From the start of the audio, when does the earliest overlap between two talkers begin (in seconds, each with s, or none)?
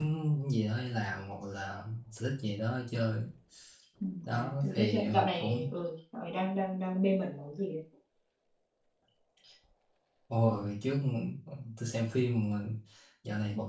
4.2 s